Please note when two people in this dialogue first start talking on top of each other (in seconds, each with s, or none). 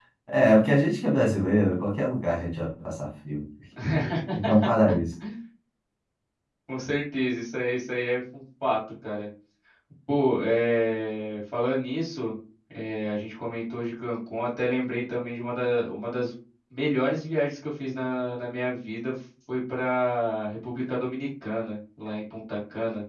none